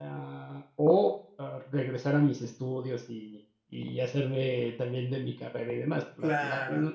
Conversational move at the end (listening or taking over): listening